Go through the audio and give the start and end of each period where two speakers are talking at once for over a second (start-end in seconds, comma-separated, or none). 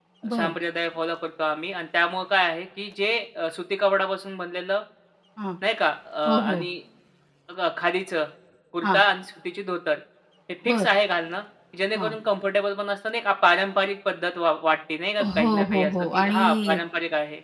15.2-16.8